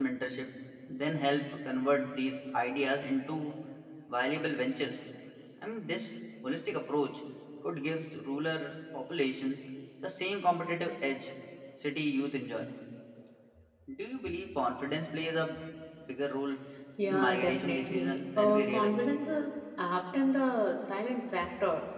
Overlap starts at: 17.0 s

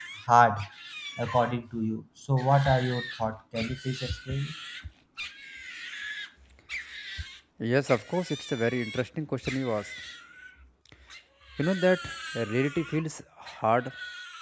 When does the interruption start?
none

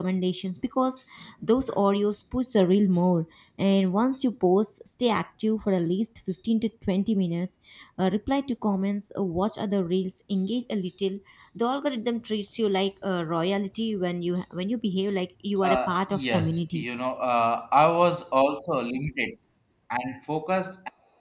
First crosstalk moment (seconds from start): 15.6 s

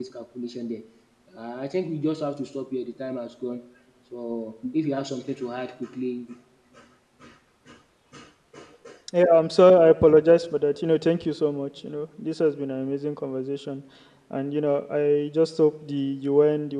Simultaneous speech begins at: none

